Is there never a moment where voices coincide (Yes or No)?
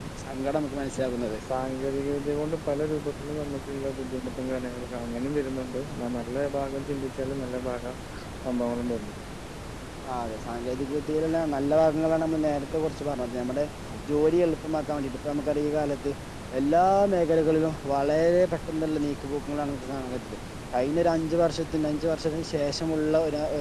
Yes